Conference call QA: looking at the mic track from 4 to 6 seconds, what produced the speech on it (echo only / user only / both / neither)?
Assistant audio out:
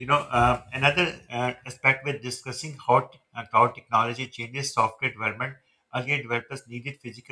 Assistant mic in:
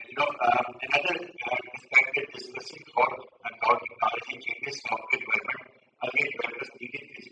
echo only